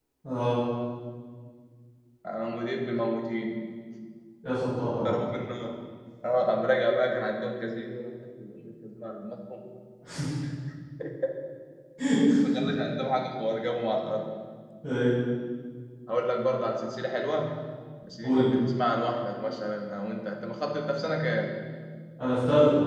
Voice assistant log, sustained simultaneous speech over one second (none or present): none